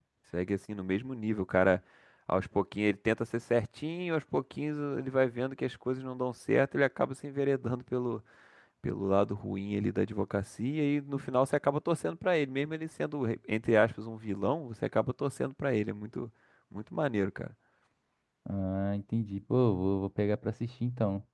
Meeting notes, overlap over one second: none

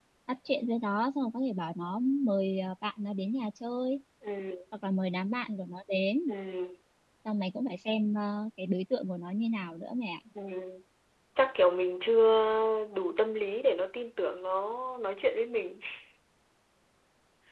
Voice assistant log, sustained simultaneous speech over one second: none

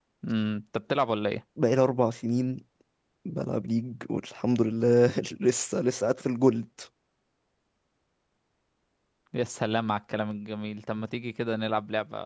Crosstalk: none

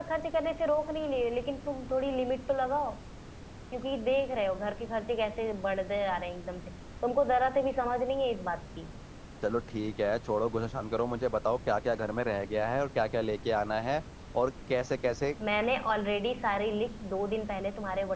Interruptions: none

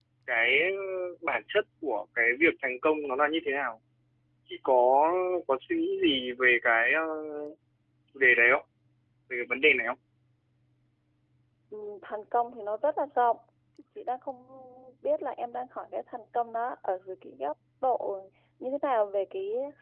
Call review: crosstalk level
none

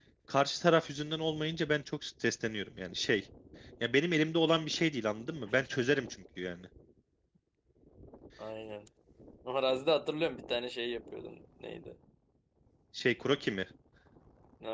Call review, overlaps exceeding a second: none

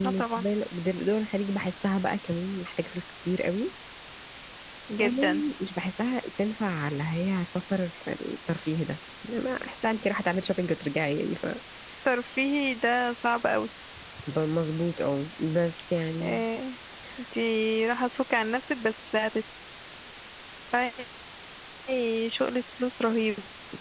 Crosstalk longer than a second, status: none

